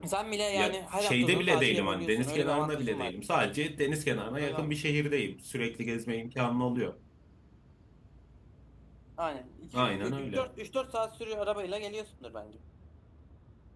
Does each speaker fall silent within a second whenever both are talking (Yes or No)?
No